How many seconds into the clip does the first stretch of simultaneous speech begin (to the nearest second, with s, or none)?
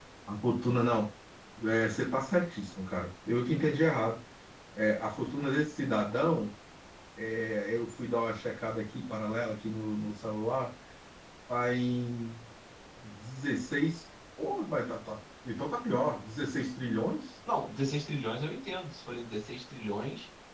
none